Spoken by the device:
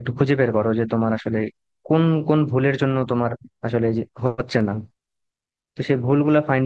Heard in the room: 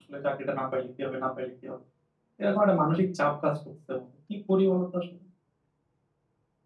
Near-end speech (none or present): present